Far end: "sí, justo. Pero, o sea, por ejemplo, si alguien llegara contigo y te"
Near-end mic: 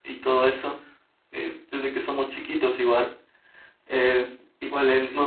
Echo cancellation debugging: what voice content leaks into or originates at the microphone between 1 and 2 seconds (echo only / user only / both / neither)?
user only